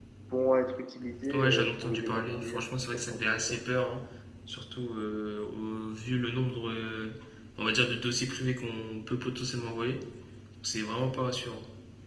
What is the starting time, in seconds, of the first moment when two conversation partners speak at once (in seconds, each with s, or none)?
1.2 s